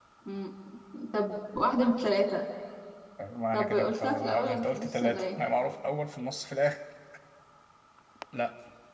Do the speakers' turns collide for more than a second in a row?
Yes, from 3.5 s

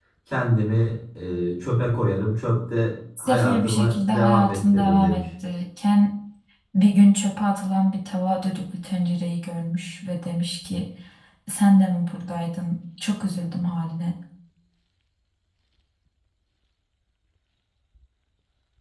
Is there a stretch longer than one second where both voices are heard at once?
Yes, from 3.2 s

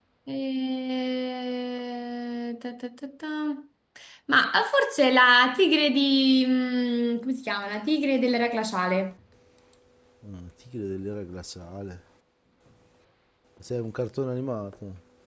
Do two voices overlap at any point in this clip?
No

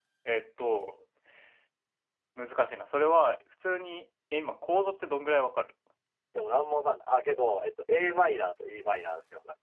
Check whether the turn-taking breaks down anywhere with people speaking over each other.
No

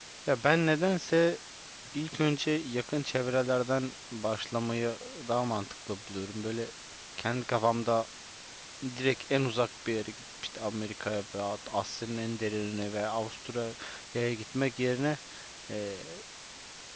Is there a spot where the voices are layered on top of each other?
No

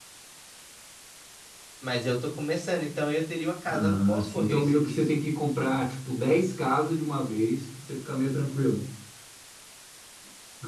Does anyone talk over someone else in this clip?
Yes, from 3.7 s

